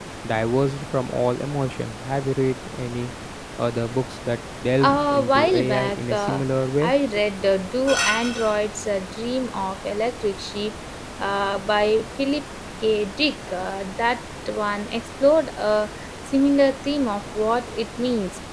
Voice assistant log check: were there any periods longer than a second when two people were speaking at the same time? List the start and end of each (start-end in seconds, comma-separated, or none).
4.8-6.4